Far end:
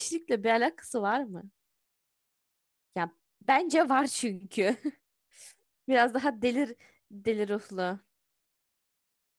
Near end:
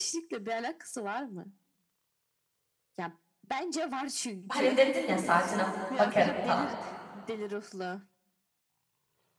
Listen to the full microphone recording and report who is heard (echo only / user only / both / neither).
both